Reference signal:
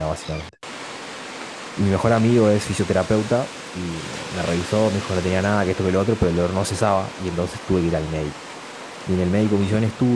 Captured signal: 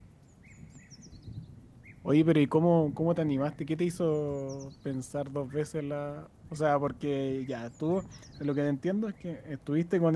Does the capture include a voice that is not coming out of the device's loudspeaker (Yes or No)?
Yes